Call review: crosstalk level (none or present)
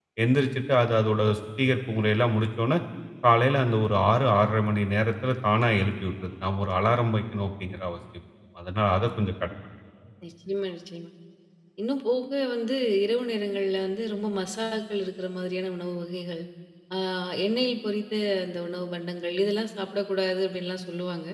none